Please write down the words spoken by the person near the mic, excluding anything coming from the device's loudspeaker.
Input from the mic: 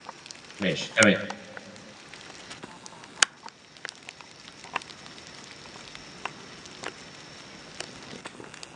ماشي، تمام.

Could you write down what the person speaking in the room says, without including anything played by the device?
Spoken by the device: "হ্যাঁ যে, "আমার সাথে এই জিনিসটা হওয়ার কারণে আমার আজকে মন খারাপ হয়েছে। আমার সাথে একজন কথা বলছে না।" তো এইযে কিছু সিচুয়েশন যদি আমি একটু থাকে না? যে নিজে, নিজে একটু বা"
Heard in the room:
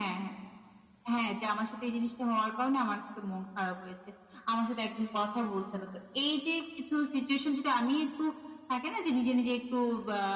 none

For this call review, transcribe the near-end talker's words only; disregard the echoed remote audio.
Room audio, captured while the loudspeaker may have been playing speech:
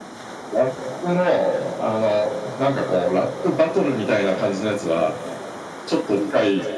none

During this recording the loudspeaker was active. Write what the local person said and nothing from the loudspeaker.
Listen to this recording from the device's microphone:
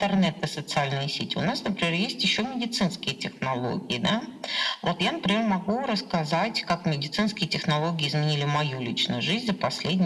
none

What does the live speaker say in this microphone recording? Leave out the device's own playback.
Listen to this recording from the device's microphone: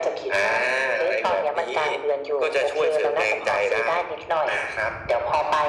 none

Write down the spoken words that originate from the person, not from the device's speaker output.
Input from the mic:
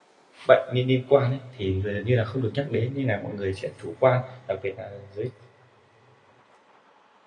bệnh niên niên quan ấy, thì giờ gần như là không được nhắc đến. Nên nà mọi người sẽ chủ quan, đặc biệt là giới

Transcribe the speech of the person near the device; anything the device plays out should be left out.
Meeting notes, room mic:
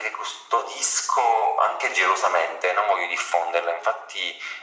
none

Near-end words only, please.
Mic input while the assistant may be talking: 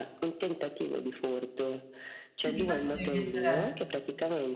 Vedi, questo mi piacerebbe.

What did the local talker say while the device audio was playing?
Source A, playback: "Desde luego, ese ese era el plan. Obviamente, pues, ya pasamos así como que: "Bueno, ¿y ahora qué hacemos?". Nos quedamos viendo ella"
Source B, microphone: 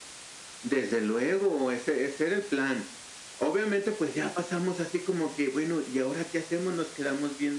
none

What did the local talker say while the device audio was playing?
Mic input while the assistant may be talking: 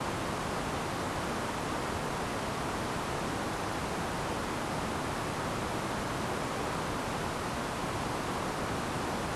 none

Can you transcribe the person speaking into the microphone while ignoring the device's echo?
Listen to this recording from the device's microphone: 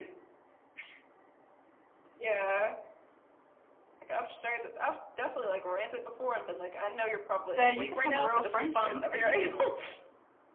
that you could have a real friendship and you can

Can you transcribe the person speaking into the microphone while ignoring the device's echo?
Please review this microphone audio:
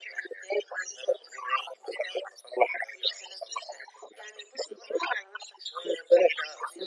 none

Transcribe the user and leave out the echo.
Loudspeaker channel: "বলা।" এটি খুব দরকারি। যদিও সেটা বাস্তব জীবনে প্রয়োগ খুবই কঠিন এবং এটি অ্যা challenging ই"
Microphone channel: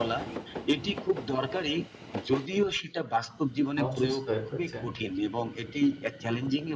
অসুস্থ হয়ে পড়েছে।

